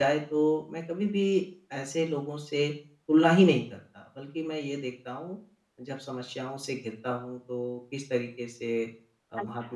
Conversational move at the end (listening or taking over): listening